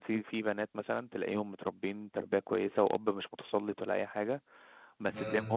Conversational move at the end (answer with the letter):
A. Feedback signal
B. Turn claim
A